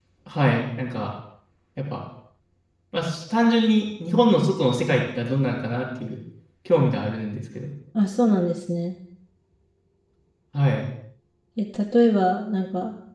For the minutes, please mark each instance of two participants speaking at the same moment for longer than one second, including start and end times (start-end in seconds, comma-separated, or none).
none